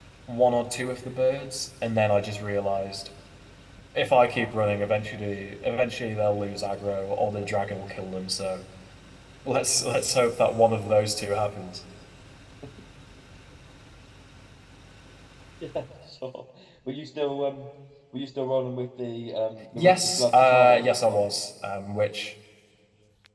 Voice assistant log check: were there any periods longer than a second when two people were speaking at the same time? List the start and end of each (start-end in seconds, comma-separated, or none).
19.7-21.3